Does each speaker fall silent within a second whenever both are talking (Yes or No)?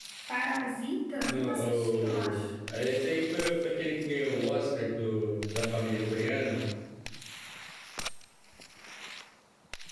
No